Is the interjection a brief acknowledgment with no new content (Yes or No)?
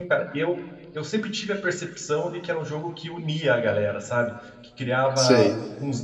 Yes